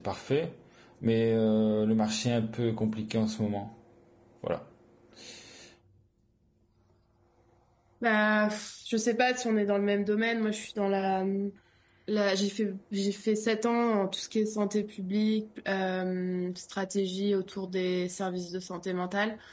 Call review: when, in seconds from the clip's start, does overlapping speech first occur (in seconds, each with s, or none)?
none